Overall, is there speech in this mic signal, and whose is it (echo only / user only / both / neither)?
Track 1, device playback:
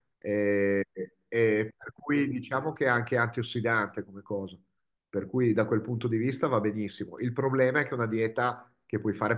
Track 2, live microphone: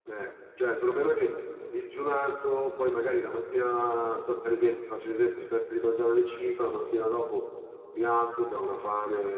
user only